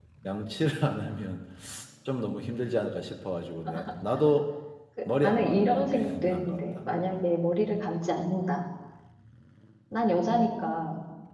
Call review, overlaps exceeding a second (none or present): present